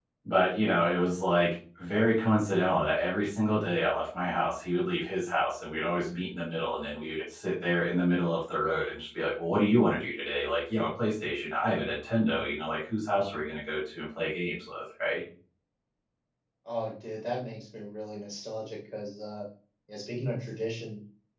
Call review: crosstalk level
none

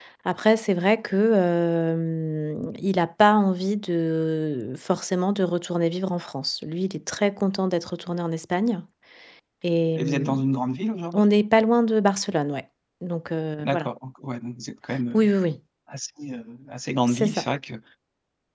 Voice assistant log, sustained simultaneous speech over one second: none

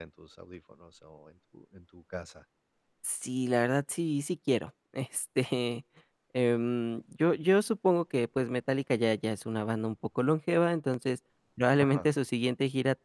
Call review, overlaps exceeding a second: none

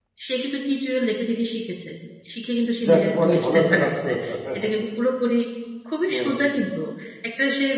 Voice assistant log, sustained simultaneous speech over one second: present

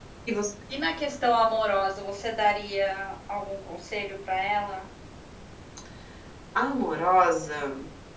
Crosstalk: none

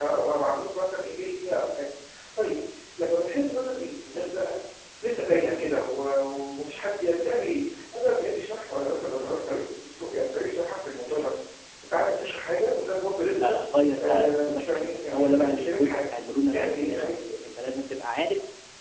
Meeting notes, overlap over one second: present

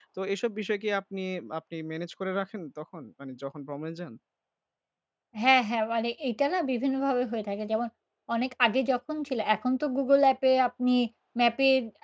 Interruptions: none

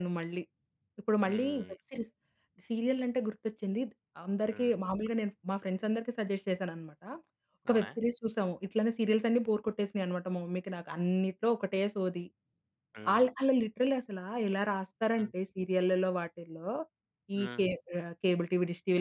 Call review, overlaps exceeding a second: none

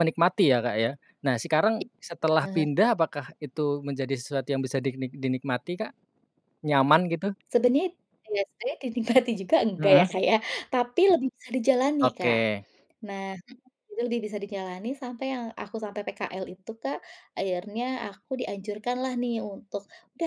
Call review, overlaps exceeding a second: none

